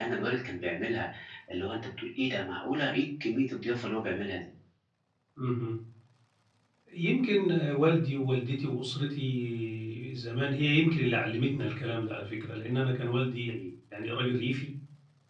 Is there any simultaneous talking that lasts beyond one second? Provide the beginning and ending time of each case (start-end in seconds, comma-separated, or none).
none